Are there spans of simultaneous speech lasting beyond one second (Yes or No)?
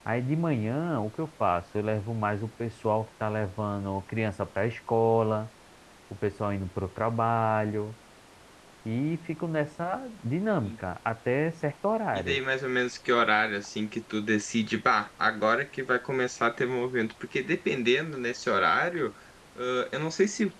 No